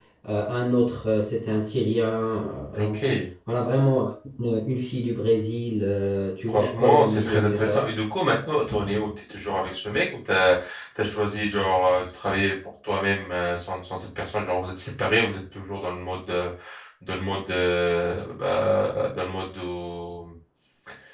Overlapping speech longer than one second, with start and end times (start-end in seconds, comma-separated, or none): 6.5-7.8